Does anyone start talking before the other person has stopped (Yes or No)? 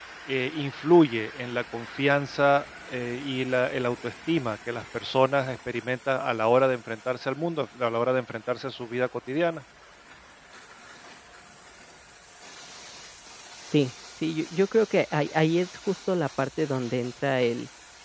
No